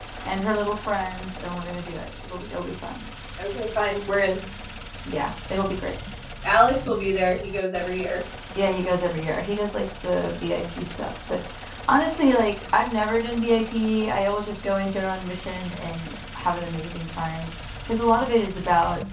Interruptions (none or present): none